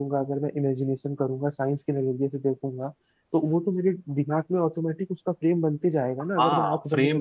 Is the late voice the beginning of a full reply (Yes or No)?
Yes